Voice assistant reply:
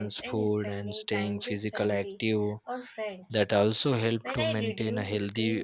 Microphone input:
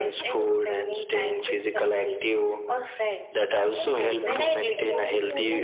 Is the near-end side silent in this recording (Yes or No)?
No